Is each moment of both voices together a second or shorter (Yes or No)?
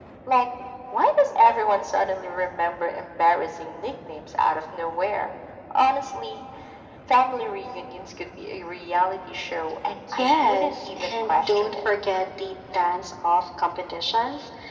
No